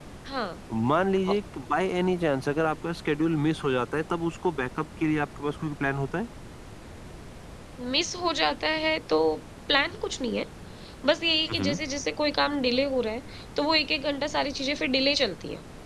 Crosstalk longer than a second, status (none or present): none